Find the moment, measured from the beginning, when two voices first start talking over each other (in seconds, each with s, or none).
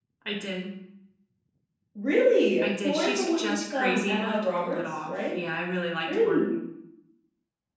2.6 s